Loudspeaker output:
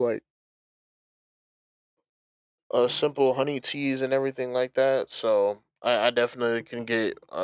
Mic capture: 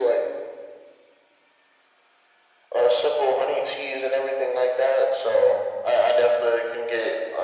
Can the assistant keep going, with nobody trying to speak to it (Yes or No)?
Yes